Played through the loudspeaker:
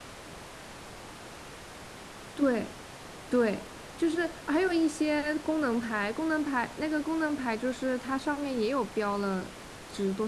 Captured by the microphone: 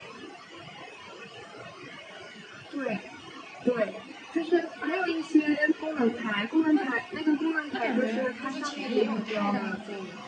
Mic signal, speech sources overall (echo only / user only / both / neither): both